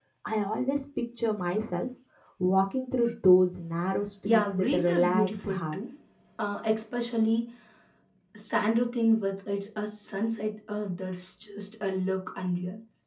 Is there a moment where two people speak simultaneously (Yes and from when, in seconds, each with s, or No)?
Yes, from 4.2 s